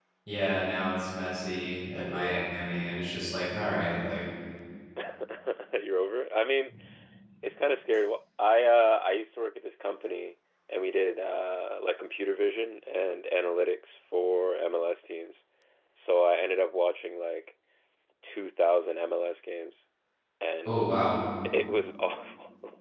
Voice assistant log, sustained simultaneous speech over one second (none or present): none